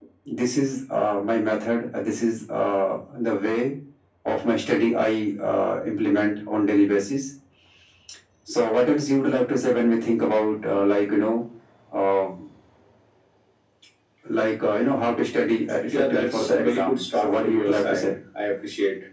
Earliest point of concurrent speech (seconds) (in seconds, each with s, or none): 15.9 s